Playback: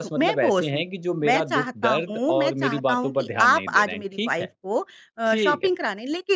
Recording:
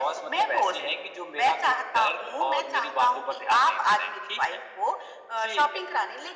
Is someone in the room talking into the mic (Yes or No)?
No